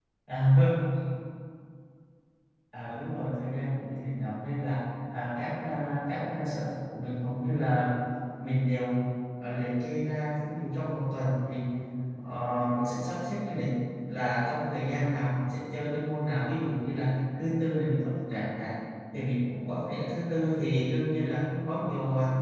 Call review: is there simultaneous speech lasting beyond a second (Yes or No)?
No